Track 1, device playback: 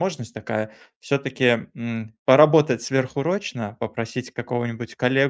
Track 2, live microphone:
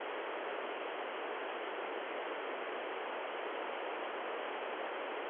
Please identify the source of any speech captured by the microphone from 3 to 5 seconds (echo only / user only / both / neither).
neither